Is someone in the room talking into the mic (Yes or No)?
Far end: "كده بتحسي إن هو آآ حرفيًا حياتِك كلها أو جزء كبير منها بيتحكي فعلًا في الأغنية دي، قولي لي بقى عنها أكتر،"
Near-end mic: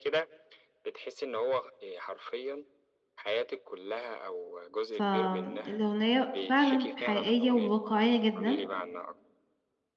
Yes